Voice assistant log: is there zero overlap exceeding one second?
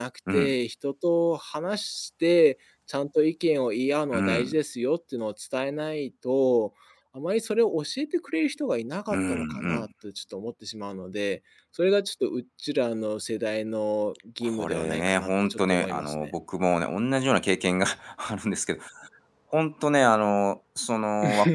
No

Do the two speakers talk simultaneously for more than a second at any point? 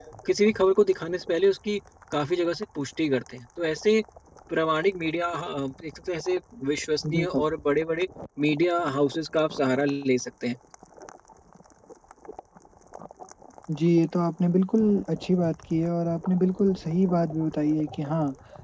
No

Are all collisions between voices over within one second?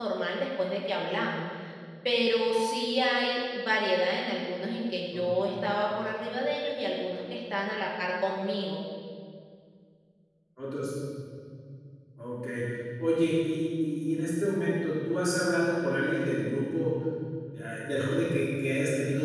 Yes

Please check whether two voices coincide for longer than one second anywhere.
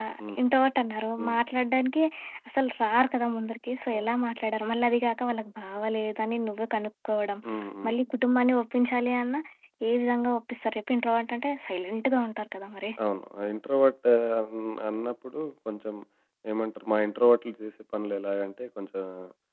No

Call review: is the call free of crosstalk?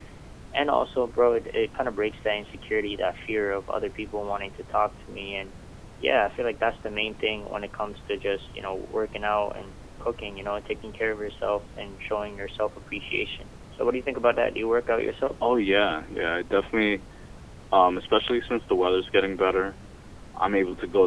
Yes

